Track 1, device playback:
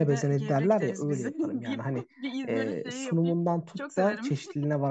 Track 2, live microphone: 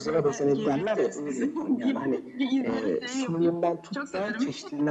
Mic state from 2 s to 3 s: echo only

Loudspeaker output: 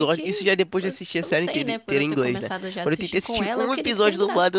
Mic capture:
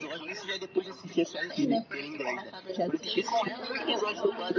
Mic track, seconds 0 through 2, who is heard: echo only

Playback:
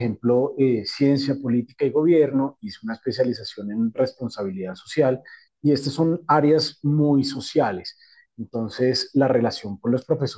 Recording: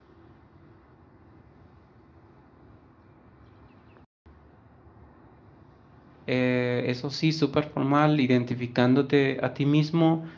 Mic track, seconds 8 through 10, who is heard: user only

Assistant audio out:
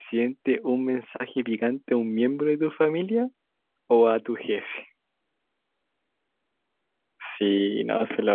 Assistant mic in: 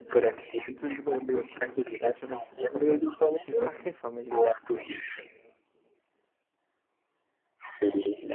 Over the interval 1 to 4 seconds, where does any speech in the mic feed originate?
both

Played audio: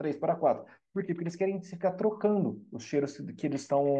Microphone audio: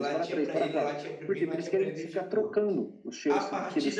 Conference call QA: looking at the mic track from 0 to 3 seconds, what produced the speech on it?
both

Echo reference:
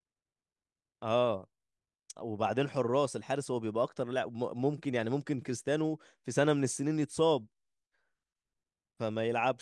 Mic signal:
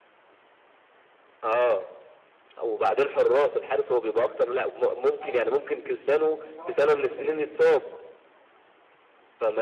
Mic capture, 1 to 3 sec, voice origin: echo only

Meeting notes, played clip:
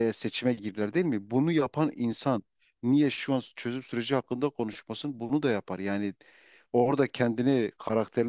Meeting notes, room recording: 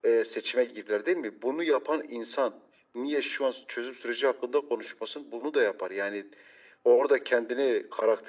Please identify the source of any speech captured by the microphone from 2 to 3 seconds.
echo only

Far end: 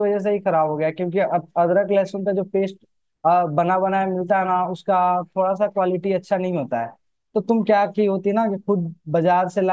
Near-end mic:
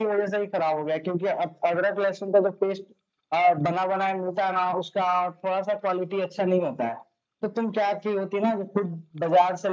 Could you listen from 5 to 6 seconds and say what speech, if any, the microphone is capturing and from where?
echo only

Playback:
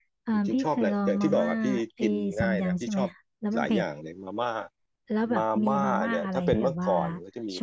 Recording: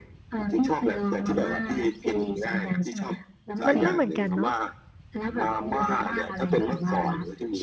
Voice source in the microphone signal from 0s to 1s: echo only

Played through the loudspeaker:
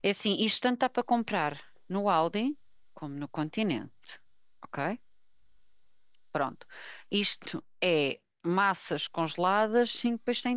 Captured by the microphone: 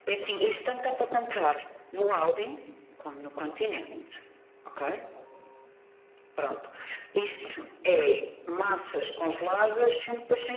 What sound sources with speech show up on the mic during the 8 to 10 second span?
echo only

